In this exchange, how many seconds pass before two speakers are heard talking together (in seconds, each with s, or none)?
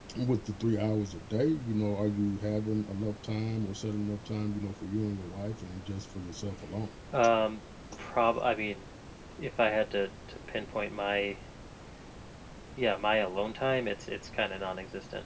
none